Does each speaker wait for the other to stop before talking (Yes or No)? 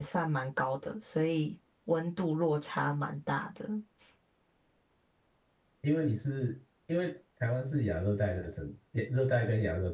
Yes